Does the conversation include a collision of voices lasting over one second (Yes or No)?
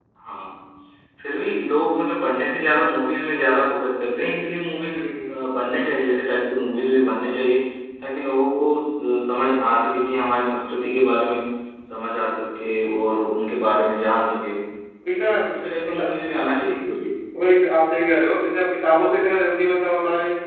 No